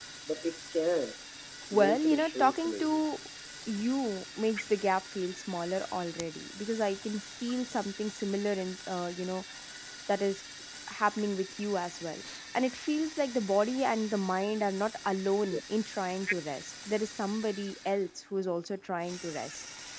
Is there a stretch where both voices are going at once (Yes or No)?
Yes